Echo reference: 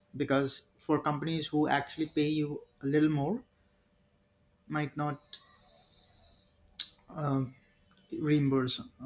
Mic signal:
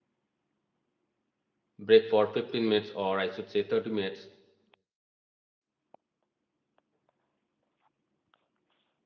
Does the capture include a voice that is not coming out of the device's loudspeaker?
Yes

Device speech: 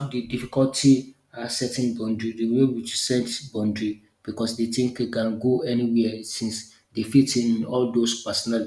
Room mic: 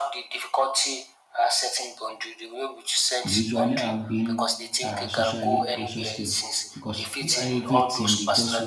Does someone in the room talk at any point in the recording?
Yes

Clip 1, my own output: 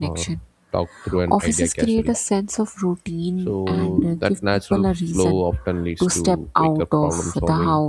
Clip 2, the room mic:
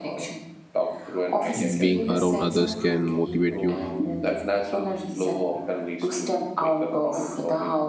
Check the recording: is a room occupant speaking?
Yes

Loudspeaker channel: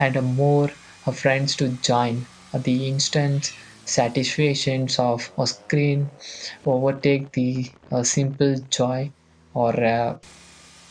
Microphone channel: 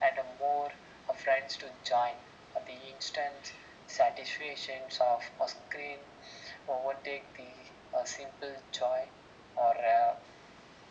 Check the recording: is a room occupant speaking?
No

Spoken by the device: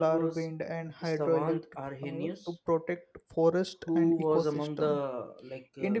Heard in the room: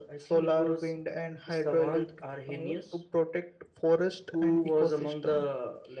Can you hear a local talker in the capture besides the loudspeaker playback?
No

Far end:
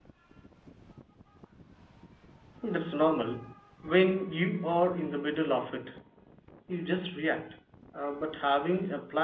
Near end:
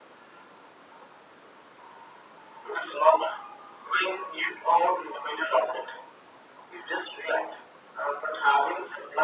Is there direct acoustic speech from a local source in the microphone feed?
No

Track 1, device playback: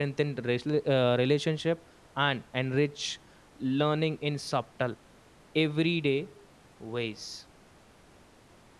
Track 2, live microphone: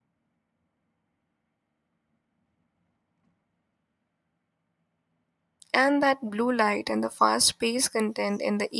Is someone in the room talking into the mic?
Yes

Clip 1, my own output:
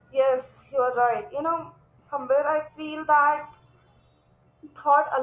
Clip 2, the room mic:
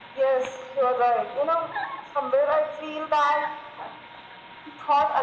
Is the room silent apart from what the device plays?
Yes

